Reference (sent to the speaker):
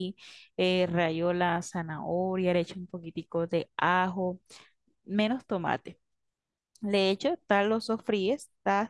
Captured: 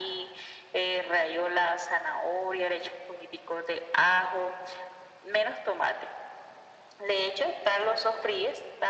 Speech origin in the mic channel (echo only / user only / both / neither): echo only